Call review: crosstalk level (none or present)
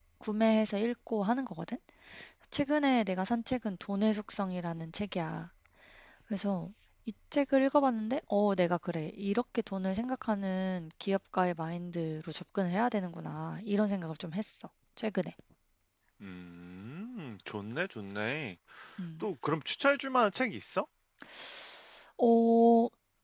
none